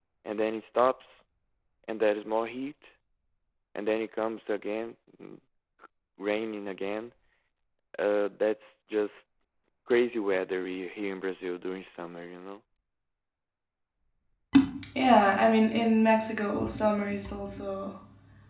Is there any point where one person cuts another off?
No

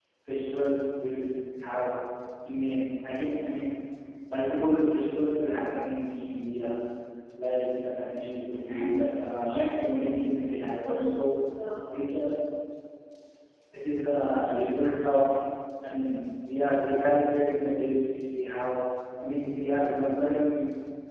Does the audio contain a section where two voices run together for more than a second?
Yes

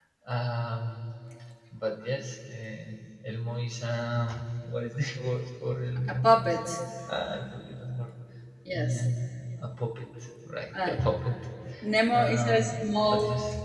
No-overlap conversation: No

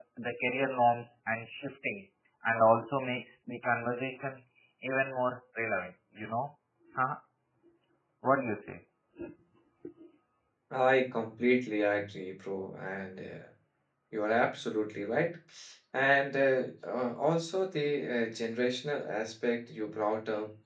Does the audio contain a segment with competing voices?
No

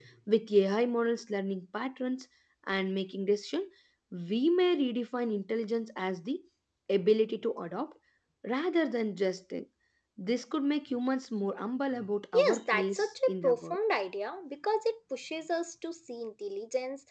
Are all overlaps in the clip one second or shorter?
No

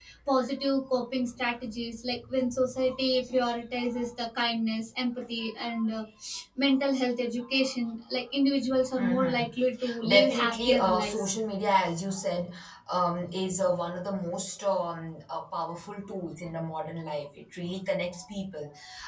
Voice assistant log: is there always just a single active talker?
No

